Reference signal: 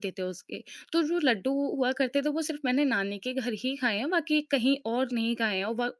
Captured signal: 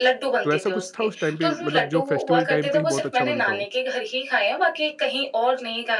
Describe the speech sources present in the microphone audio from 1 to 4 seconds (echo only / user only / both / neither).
both